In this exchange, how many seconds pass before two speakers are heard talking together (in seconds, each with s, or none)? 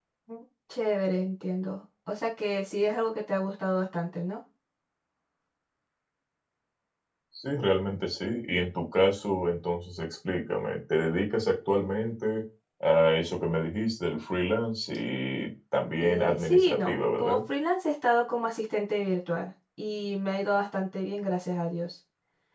16.0 s